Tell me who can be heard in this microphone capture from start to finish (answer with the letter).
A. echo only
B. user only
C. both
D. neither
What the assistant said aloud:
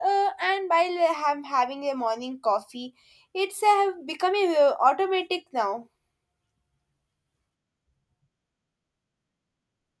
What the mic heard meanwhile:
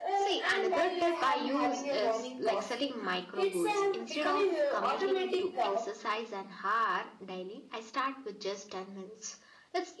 C